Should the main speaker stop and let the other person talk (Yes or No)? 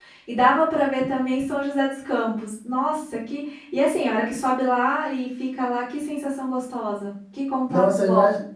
Yes